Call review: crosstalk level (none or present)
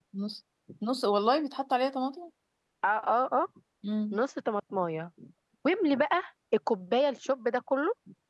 none